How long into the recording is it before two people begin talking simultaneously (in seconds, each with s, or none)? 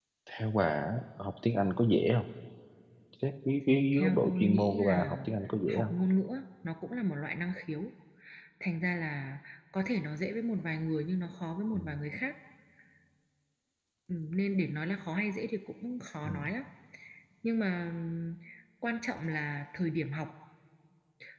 3.9 s